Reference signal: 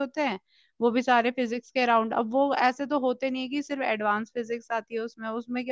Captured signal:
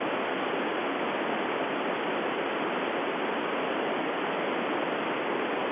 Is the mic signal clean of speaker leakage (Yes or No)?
Yes